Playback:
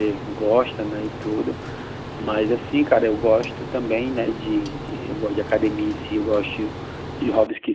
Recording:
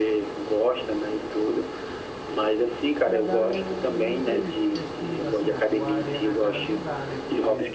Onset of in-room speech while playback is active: 3 s

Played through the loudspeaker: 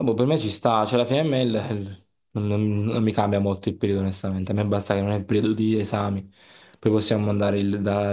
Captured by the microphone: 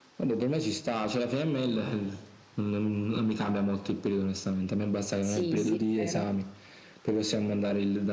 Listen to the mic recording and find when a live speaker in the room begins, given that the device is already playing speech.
5 s

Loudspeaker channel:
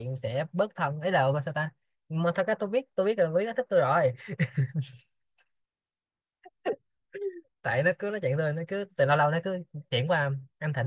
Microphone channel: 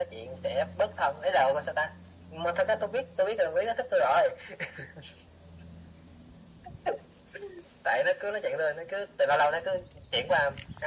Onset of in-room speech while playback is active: none

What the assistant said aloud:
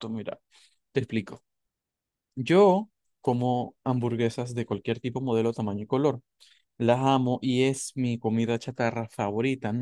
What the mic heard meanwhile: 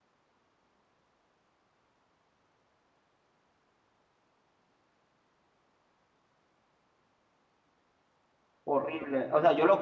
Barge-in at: 9 s

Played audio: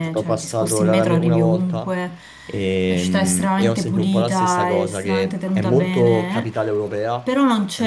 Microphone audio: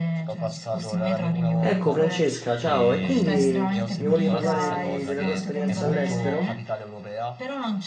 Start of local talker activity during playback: 2 s

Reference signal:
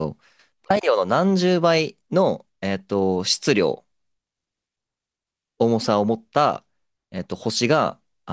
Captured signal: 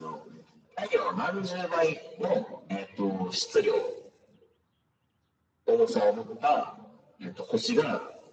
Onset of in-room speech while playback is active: none

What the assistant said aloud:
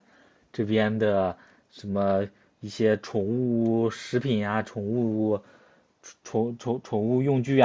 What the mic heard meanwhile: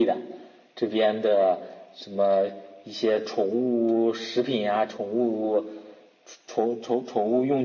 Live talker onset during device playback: none

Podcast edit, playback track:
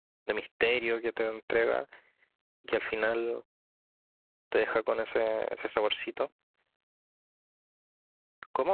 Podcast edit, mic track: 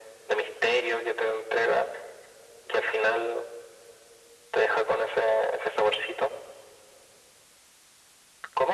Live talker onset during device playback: none

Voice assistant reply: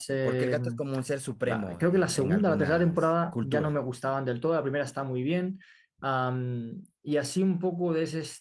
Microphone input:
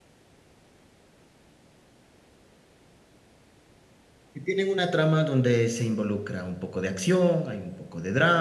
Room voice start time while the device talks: 4 s

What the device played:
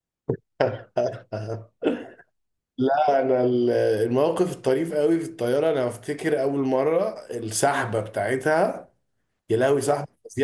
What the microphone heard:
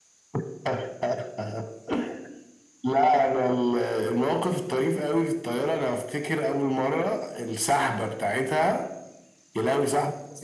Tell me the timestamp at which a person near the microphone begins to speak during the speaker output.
none

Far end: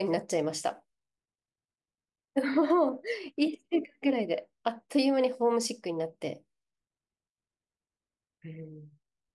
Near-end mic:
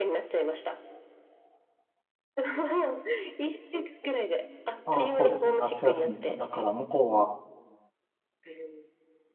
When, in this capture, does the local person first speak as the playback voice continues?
5 s

